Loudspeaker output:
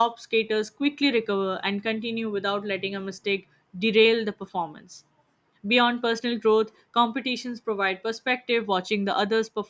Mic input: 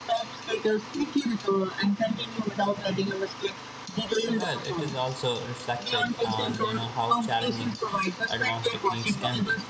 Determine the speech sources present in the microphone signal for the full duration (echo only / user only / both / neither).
both